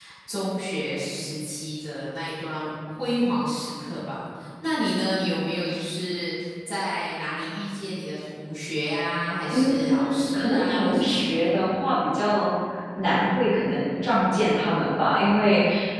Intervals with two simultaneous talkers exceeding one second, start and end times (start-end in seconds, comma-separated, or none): 9.5-11.6